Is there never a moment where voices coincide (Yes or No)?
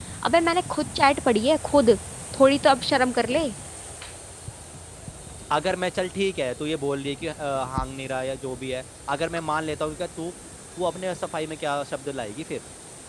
Yes